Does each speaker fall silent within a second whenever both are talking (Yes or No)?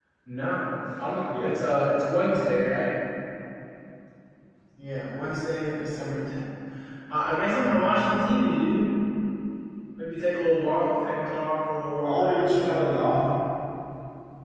No